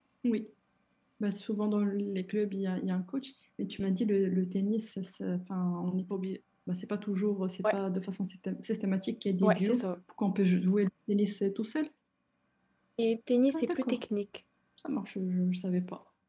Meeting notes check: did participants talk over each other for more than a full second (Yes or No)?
No